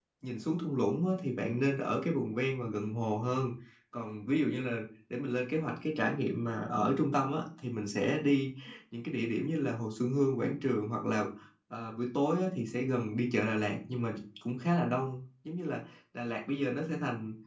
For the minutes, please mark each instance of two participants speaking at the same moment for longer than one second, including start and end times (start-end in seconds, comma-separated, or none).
none